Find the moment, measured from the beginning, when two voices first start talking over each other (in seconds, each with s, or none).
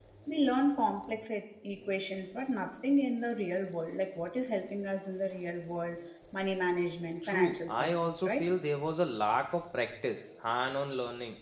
7.2 s